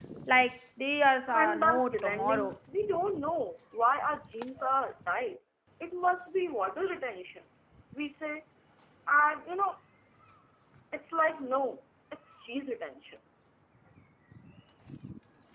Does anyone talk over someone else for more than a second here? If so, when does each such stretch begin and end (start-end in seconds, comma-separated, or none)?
1.3-2.5